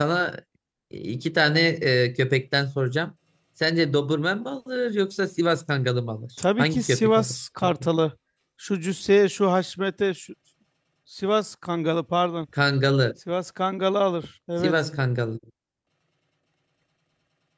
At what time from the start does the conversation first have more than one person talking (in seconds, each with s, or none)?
6.6 s